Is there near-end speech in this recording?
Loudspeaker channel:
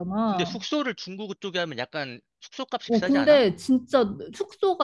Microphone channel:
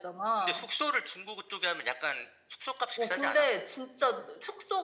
No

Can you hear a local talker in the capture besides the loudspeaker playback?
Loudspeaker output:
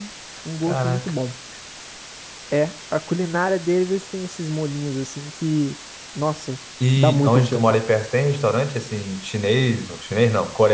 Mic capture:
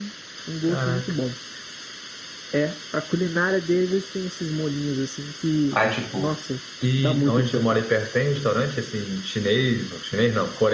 Yes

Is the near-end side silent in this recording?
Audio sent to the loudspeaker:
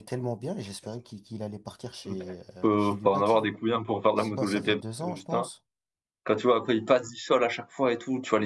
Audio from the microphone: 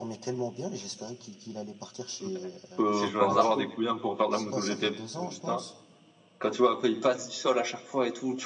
No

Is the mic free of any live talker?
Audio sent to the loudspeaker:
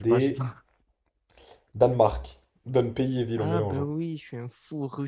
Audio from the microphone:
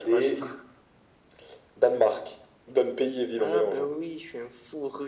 Yes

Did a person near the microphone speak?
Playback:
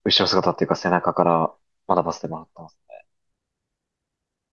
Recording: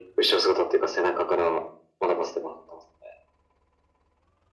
No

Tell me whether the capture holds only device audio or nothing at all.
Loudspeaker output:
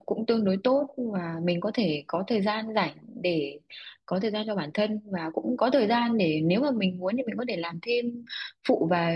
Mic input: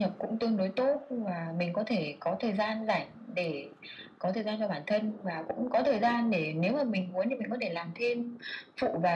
Yes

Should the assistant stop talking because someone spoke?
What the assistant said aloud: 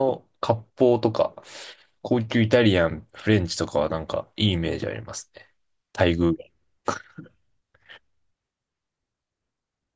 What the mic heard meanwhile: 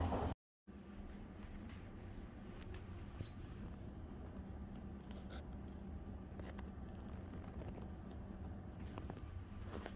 No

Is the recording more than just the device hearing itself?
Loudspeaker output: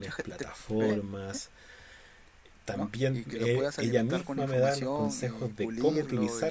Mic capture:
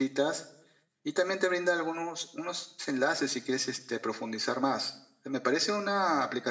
Yes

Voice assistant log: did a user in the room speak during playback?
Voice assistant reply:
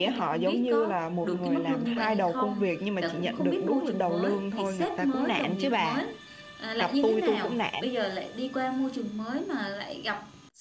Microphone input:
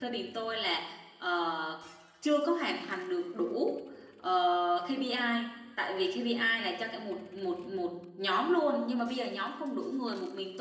Yes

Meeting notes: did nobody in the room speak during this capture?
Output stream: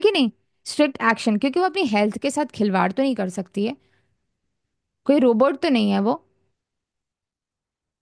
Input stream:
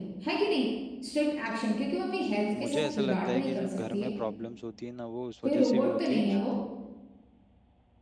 No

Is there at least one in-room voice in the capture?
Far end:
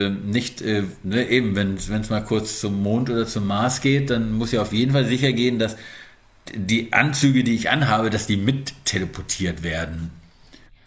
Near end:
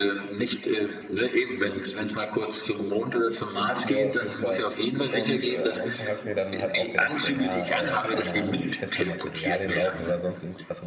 Yes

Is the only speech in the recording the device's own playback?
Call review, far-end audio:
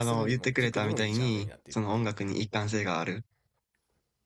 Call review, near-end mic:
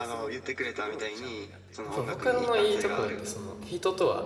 No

